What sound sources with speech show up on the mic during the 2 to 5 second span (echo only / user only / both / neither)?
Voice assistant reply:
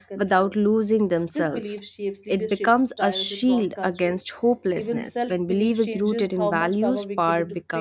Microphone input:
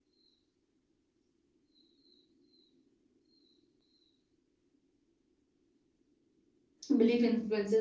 neither